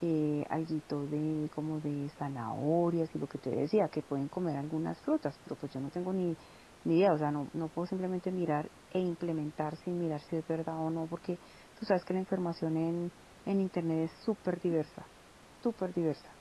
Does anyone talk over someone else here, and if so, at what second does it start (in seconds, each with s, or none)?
none